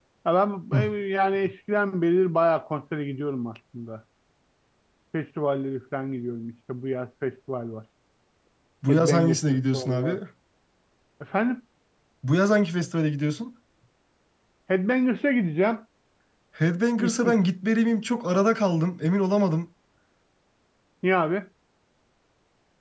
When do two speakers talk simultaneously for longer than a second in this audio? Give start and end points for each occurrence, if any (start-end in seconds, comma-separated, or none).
8.9-10.2